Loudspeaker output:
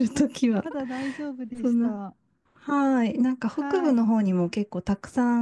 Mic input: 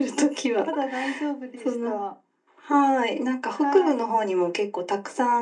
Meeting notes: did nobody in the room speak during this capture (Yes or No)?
Yes